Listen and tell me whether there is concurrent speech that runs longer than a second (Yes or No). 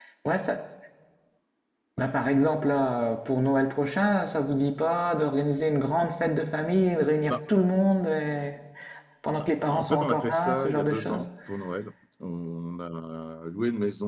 Yes